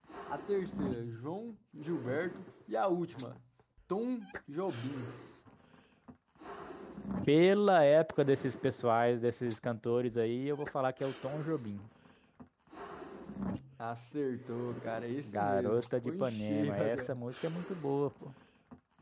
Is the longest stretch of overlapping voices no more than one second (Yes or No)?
No